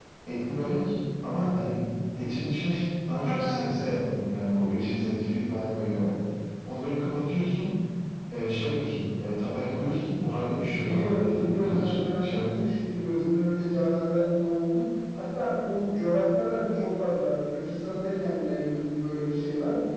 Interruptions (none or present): present